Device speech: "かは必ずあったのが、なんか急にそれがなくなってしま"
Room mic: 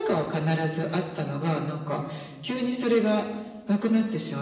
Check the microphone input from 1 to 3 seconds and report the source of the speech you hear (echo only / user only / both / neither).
echo only